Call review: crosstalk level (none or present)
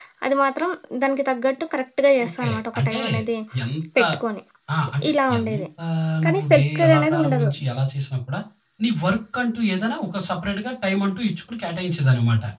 present